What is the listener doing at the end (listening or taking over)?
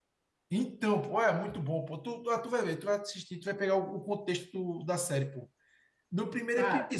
listening